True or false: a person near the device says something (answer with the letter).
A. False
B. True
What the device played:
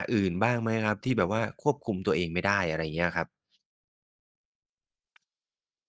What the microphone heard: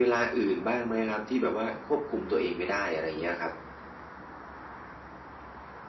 A